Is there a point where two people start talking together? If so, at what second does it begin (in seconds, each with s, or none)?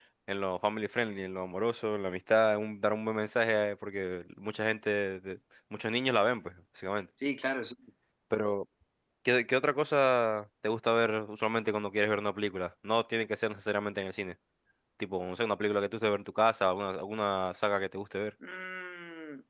none